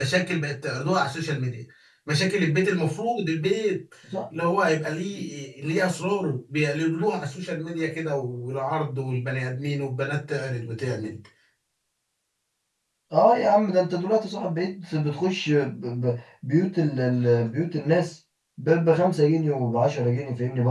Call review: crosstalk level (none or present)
none